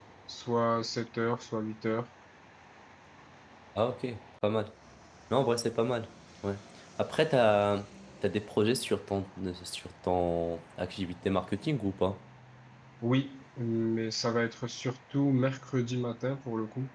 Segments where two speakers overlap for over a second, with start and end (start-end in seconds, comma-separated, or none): none